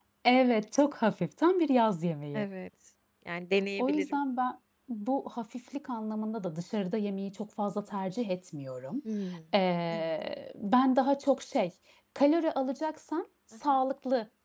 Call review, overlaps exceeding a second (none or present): none